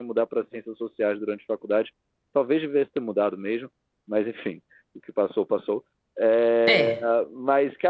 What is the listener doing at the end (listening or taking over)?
listening